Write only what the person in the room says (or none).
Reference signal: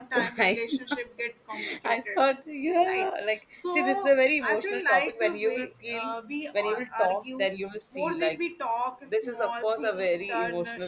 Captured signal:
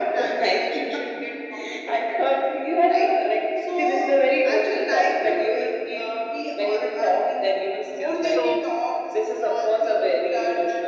या सो